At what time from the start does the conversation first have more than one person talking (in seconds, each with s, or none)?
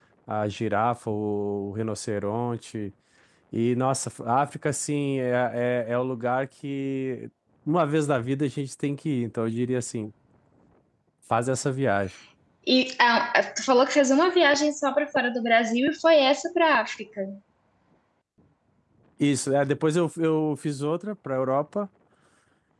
none